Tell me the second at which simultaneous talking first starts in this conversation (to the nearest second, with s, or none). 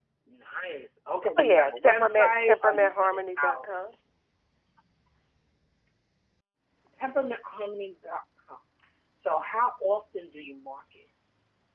1 s